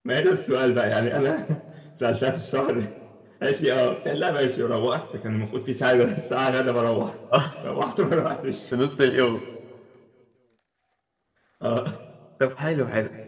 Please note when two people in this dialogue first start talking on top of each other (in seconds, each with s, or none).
none